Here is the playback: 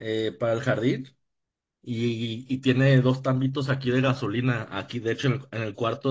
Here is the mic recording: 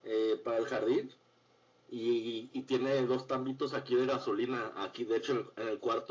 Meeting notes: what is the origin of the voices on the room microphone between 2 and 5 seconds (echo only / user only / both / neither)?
echo only